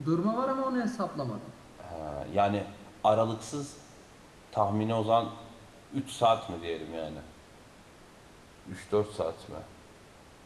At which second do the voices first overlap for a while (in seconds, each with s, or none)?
none